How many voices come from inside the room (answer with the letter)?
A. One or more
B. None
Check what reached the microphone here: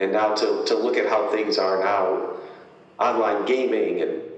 B